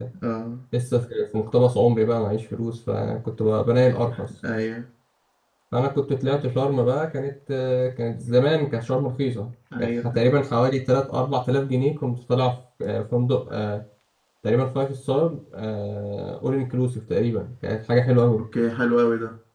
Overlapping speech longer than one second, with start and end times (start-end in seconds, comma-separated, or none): none